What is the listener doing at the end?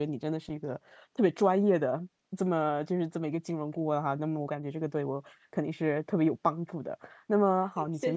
listening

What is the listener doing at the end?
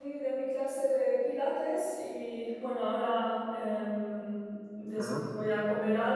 listening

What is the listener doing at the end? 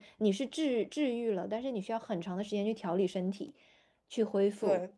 listening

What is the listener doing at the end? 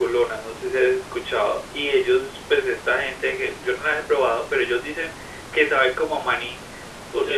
listening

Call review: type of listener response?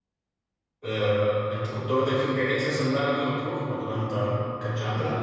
taking over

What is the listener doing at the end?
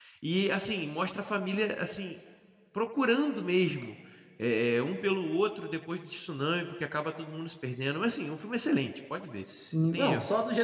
taking over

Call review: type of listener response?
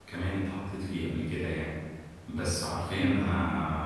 listening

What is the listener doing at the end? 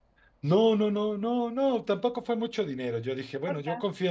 listening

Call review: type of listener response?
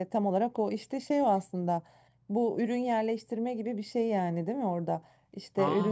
listening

